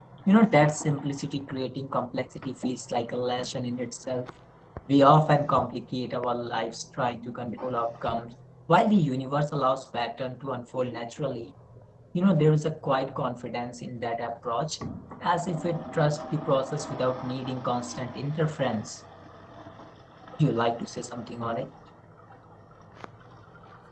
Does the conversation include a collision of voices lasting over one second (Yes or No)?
No